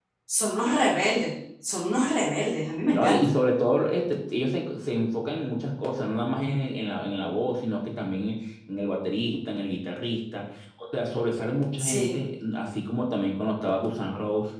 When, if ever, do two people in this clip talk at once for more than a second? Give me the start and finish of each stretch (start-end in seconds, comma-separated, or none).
none